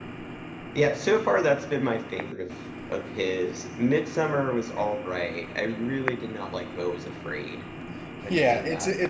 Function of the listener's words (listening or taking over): taking over